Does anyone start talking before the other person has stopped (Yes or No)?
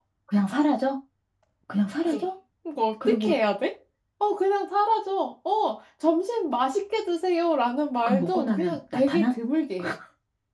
Yes